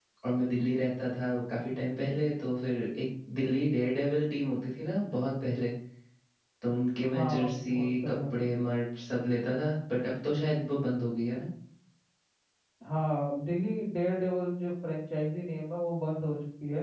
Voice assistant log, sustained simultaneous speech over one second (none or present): present